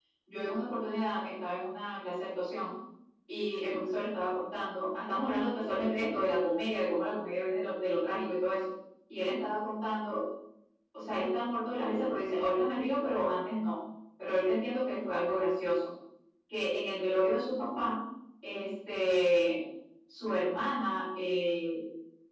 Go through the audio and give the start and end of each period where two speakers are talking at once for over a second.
none

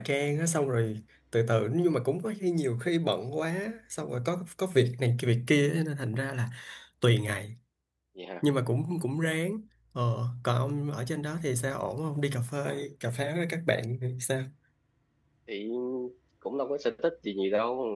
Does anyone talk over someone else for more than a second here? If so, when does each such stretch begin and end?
none

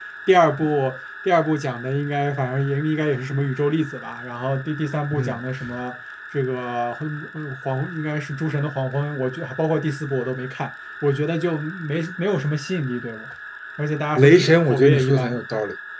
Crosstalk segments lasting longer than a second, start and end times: 14.2-15.4

